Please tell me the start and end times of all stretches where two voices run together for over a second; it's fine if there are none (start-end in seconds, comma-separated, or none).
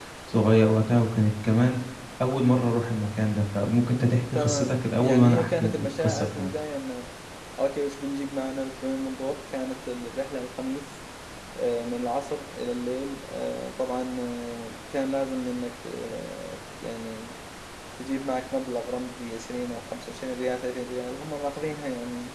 4.3-6.5